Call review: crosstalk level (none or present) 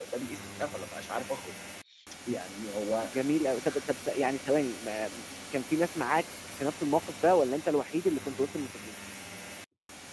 none